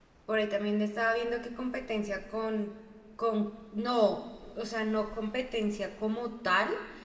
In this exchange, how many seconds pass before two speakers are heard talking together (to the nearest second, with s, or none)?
none